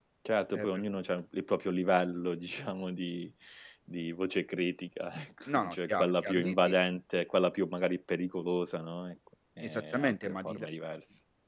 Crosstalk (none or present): present